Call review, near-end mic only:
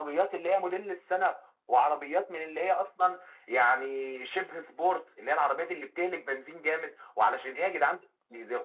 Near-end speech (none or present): none